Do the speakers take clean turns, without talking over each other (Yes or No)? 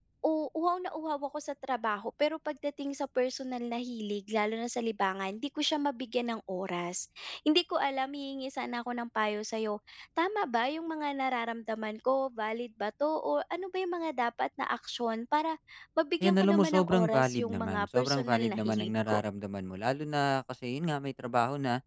No